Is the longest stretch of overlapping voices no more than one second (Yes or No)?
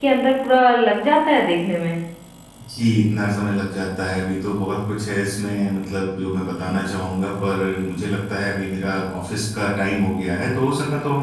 Yes